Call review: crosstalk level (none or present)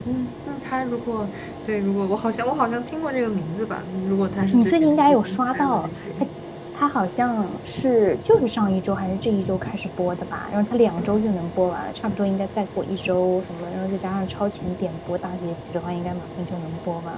present